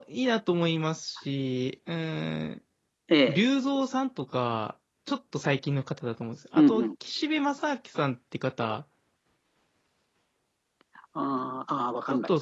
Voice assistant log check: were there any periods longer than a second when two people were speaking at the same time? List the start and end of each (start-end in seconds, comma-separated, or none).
none